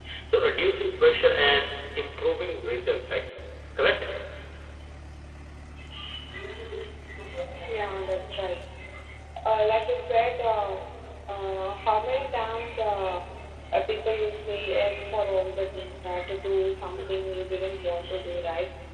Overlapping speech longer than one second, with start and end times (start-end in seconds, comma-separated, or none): none